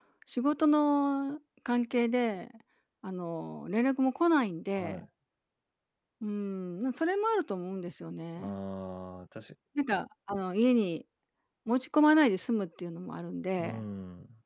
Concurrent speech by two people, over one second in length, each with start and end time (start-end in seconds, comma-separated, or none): none